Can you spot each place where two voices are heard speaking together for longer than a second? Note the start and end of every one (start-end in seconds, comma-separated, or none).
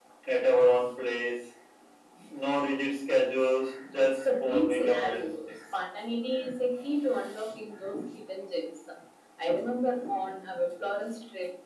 3.8-5.6